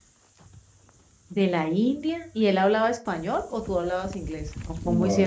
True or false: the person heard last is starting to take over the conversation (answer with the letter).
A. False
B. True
B